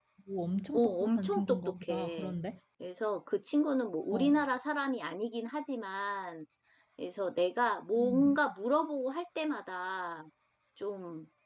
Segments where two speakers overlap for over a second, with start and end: 0.7-2.3

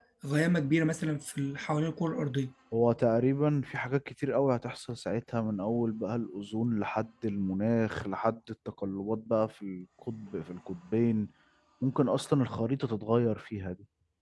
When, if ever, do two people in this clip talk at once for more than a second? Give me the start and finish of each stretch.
none

